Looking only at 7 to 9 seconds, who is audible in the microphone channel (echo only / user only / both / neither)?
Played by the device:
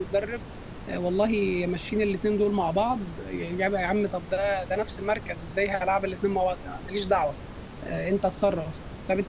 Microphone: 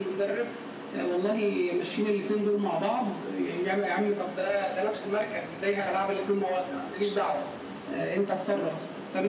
echo only